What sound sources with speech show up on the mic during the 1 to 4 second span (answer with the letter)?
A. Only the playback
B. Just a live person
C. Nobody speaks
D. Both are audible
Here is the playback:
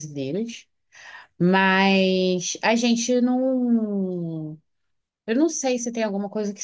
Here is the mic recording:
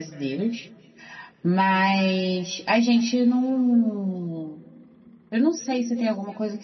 A